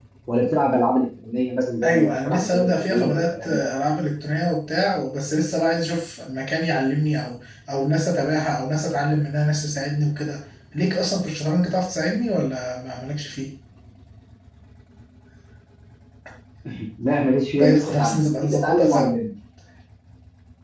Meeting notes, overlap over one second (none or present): present